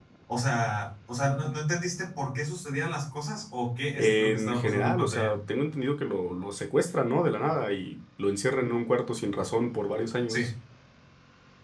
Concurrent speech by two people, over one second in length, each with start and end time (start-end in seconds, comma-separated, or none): 4.0-5.3